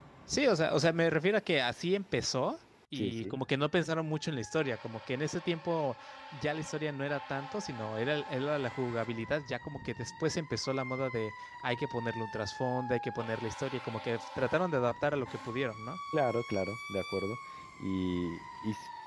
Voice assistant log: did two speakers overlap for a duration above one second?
No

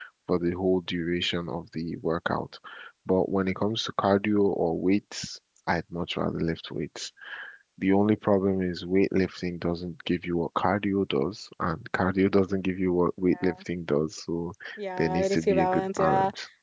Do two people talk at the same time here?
Yes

